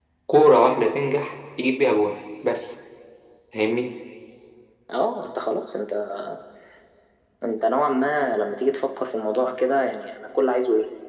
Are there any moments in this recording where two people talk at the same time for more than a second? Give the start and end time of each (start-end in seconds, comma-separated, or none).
none